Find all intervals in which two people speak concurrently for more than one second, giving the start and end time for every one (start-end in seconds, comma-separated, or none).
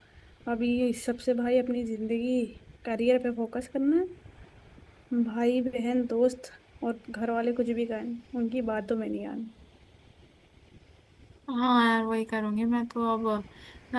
none